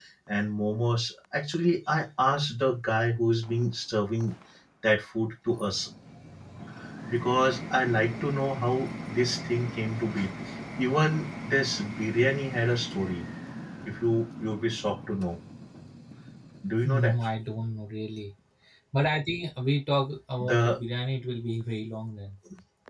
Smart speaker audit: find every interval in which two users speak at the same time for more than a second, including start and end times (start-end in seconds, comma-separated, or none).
none